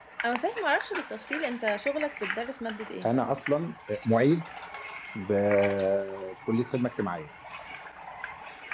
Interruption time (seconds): none

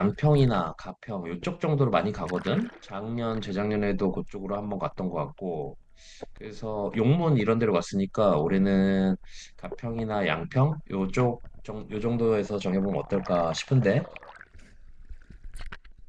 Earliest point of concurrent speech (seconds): none

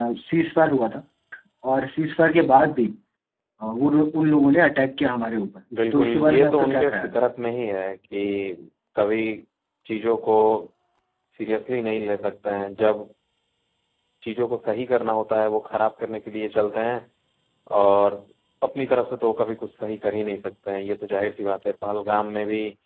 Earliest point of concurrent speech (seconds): 5.7 s

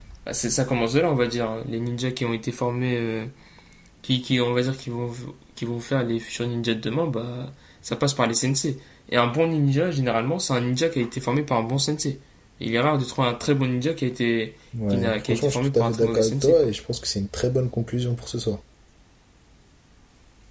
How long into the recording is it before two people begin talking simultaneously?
14.7 s

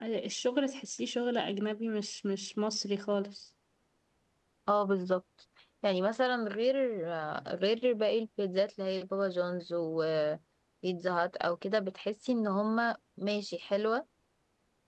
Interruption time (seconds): none

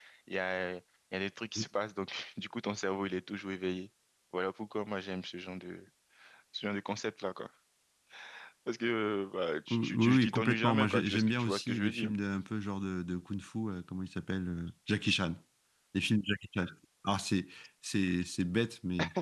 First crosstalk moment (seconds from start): 9.7 s

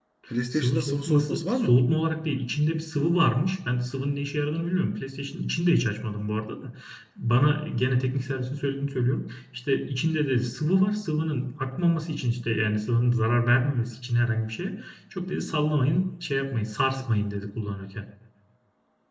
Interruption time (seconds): 0.5 s

